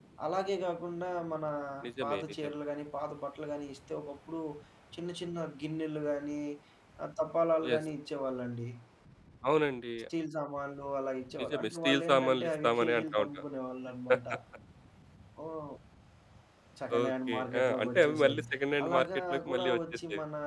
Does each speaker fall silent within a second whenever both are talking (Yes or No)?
No